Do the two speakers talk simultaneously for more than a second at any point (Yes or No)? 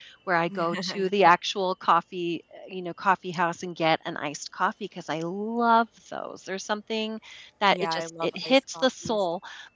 Yes